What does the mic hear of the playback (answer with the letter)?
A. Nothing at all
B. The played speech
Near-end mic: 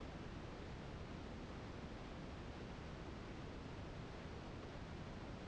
A